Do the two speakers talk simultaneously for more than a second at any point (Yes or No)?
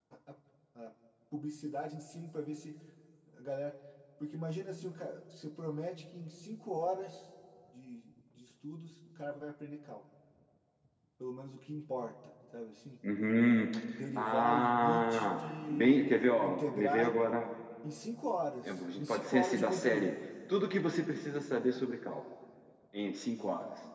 Yes